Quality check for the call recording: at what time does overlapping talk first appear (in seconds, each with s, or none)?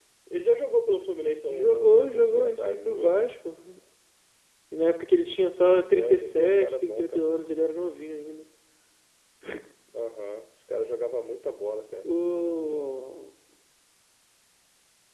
1.5 s